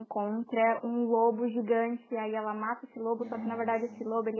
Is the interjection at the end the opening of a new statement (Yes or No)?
No